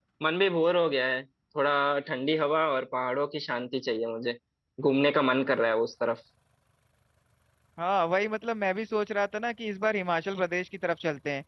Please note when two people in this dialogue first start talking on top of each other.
none

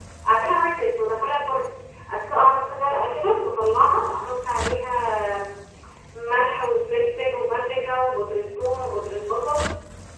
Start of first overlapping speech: none

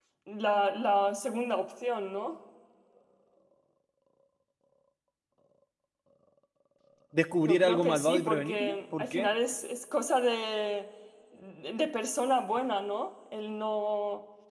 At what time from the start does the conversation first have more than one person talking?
7 s

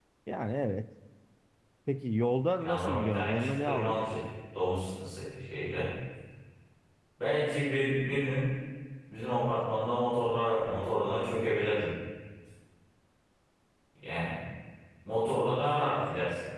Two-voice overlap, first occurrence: 3 s

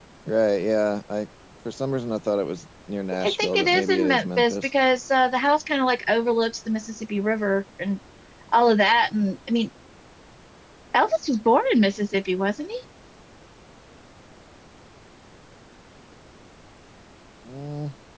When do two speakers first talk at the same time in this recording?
3 s

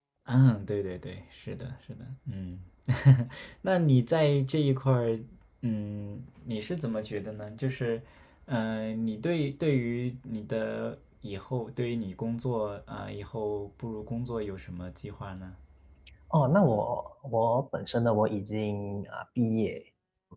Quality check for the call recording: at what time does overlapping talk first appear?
none

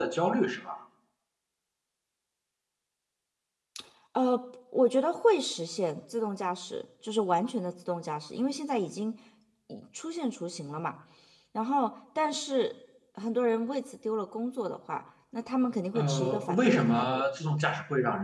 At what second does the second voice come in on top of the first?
16 s

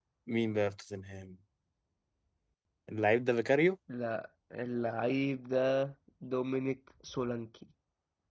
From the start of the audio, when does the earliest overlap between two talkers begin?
none

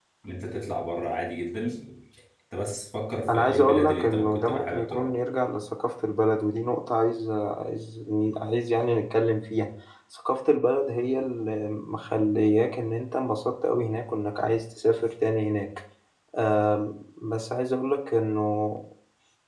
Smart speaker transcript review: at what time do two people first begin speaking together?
3 s

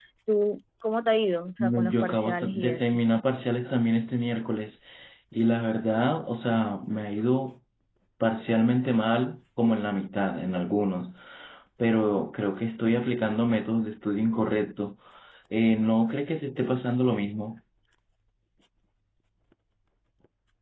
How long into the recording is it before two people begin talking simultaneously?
2 s

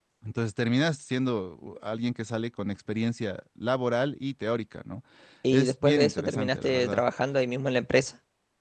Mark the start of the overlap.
6 s

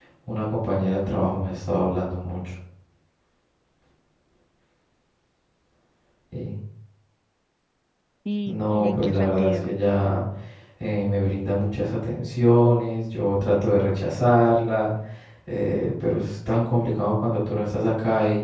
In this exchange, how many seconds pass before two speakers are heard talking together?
8 s

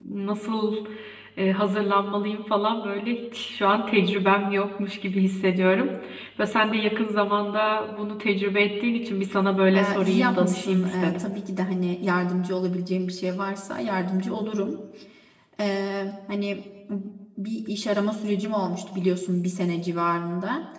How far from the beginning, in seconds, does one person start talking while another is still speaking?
10 s

